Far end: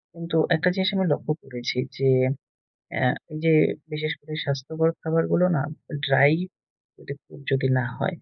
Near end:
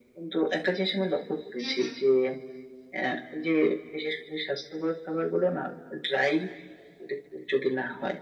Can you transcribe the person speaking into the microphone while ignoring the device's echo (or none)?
হুম, হুম,